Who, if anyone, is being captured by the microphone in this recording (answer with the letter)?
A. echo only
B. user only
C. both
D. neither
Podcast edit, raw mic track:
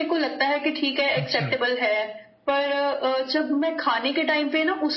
C